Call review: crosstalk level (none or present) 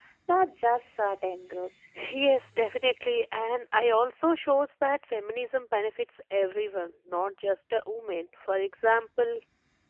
none